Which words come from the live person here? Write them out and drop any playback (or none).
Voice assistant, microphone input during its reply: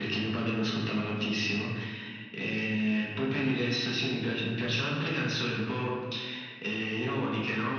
none